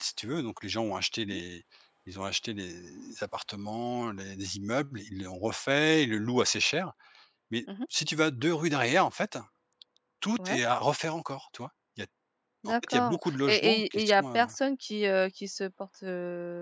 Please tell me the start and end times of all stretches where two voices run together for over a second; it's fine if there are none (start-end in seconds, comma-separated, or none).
12.7-14.2